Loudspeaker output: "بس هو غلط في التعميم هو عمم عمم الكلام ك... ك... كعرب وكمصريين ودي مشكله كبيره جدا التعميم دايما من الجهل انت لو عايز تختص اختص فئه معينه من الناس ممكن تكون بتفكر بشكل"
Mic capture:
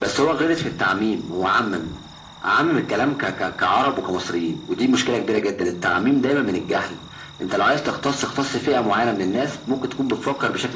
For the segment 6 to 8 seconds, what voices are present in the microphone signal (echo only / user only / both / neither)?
echo only